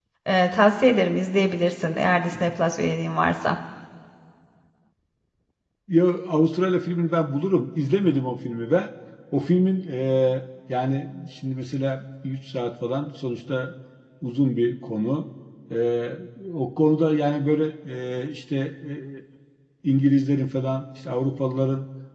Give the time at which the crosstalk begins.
none

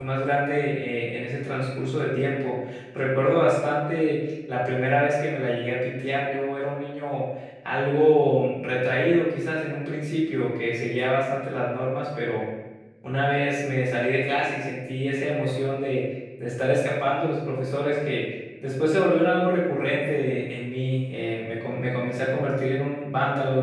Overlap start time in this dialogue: none

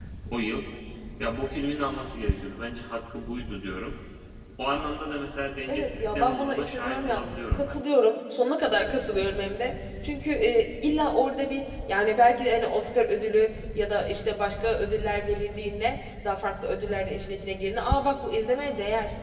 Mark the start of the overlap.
5.7 s

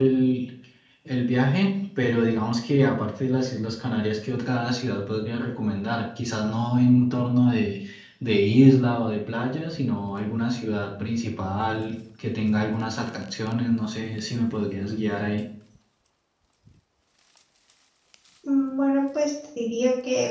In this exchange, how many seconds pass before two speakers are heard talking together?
none

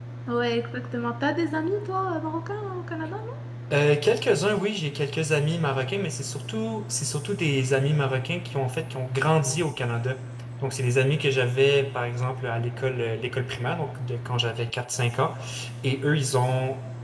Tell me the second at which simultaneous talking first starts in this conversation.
none

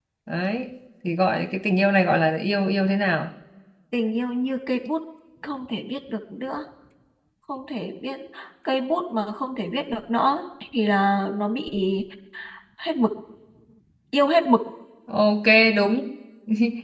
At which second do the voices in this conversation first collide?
none

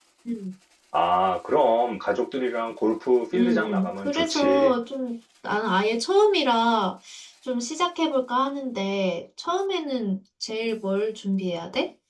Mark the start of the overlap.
3.3 s

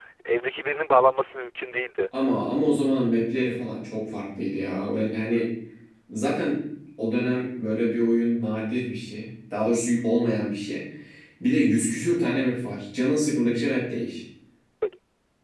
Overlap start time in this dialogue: none

